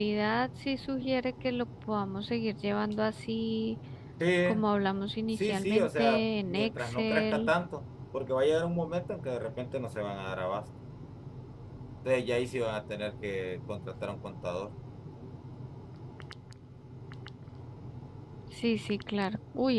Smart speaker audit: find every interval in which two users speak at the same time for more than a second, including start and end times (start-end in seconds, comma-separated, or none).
5.3-7.5